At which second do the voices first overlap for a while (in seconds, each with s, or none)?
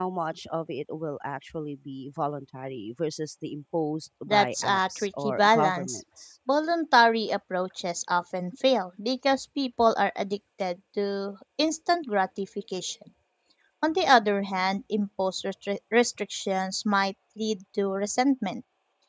4.3 s